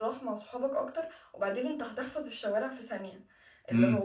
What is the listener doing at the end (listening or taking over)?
listening